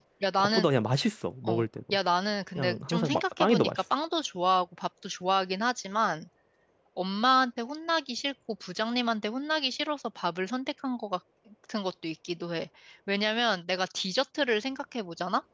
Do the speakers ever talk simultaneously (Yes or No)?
Yes